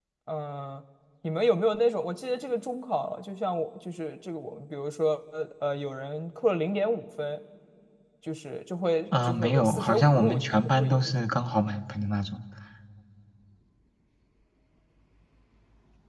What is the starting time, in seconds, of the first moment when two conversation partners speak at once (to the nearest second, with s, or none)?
9 s